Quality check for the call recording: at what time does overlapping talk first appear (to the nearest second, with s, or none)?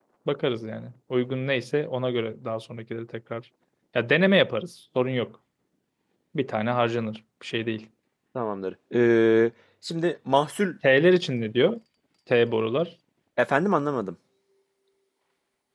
none